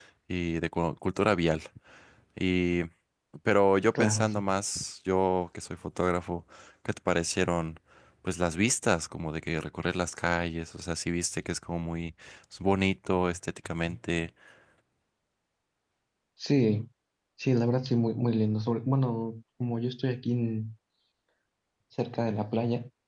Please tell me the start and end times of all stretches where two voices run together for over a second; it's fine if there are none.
none

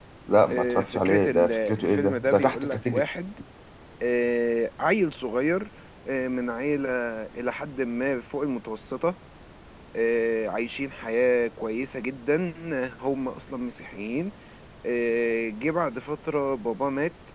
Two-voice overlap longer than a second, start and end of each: 0.5-3.0

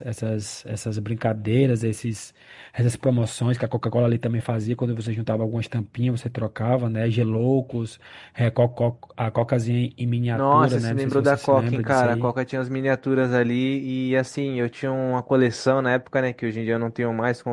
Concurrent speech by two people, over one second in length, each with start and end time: 10.3-12.3

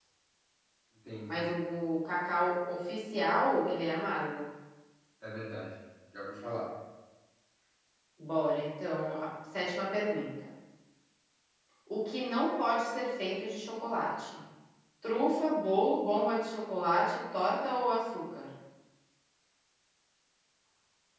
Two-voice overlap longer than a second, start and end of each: none

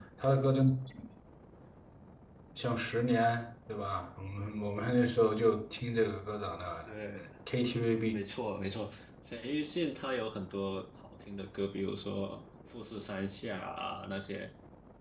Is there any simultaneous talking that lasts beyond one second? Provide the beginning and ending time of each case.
none

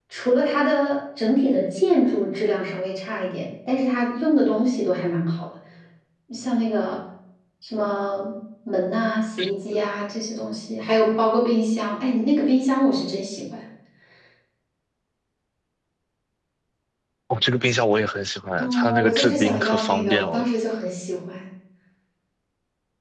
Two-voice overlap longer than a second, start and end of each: 18.6-20.5

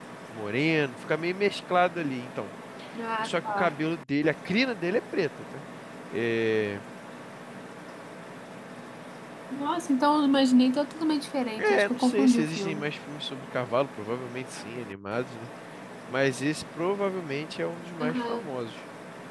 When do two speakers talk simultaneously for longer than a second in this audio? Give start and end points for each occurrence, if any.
11.6-12.8

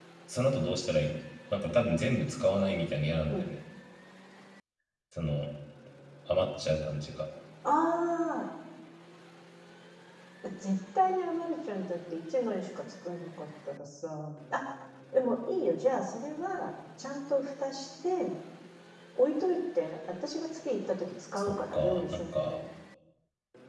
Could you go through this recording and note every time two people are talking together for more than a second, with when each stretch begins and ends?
21.4-22.6

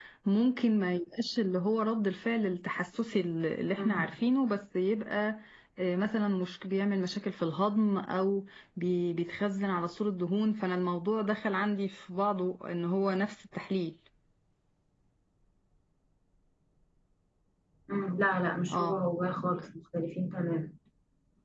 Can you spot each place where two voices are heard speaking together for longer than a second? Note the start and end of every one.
none

